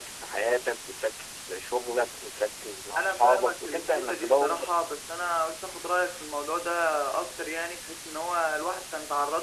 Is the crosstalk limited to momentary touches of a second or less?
No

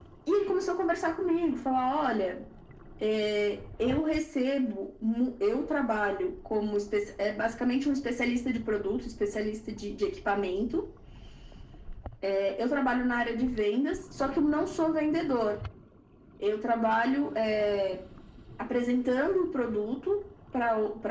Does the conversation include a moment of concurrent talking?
No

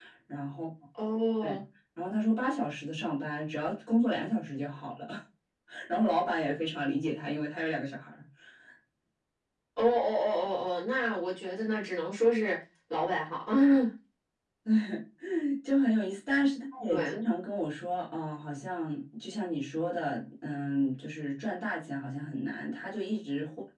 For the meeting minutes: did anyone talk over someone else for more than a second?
No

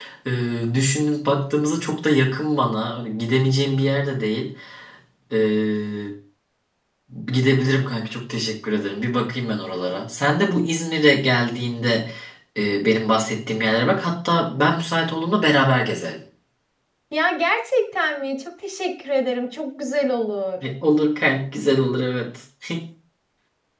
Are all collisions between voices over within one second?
Yes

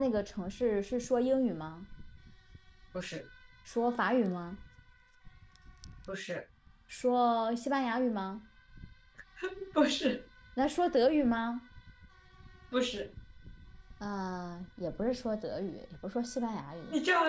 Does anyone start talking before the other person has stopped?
No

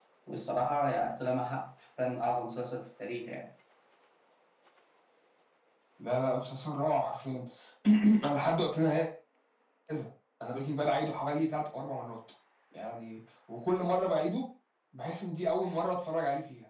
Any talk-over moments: No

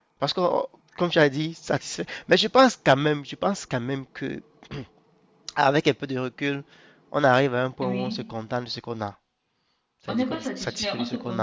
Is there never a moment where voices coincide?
No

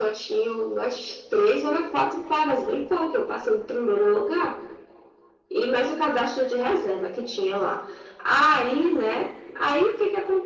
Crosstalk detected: No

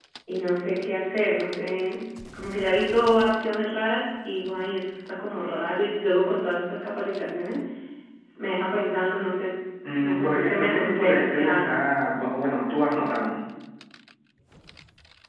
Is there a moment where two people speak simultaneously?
Yes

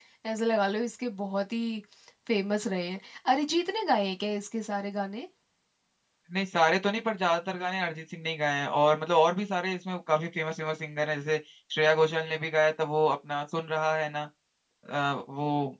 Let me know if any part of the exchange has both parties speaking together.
No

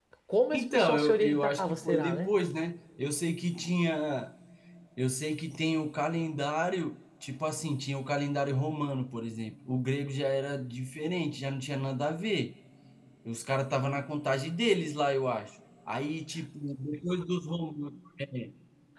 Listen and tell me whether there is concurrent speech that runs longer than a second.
Yes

